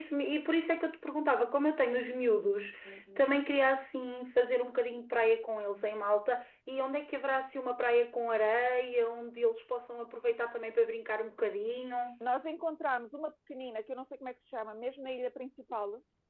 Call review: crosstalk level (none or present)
none